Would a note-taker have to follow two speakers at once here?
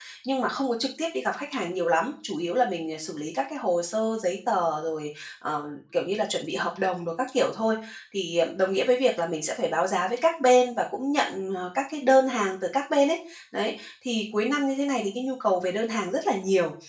No

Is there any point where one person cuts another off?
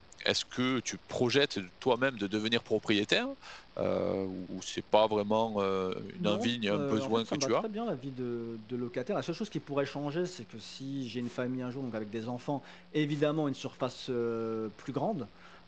Yes, from 6.2 s

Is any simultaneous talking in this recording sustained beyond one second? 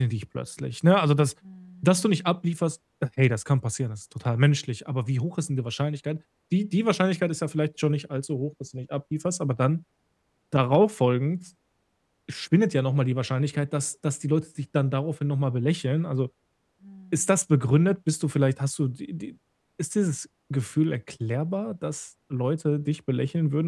No

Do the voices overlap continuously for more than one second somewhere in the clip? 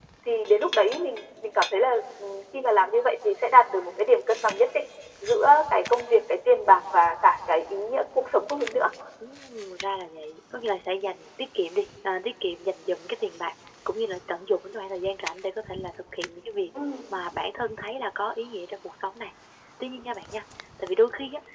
No

